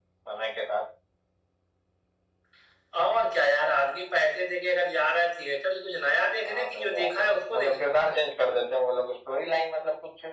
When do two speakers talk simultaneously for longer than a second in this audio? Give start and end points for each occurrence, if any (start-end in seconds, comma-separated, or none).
6.4-7.8